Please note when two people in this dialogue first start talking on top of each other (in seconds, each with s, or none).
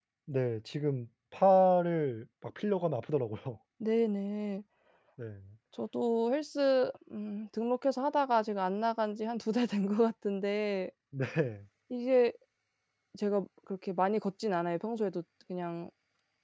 none